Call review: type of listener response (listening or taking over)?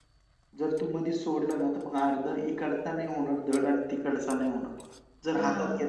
listening